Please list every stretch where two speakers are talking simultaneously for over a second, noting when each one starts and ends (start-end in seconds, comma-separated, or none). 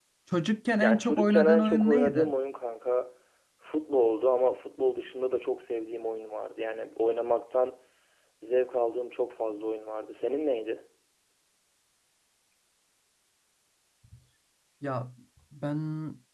0.8-2.3